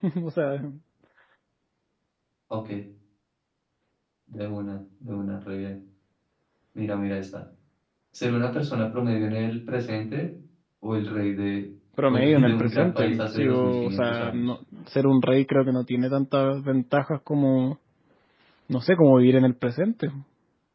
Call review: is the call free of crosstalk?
No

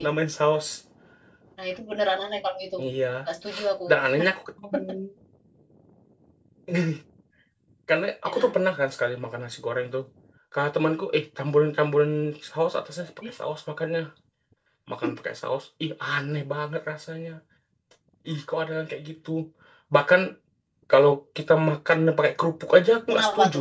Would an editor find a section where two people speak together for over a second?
No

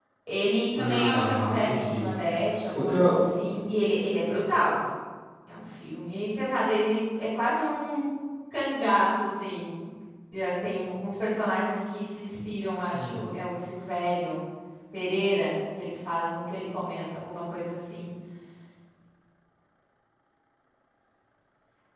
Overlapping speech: Yes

